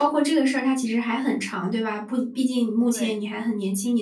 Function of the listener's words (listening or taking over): listening